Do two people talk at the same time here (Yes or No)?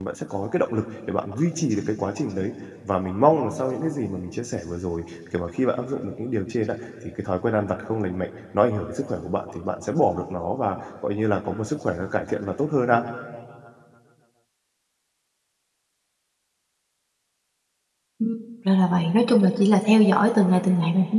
No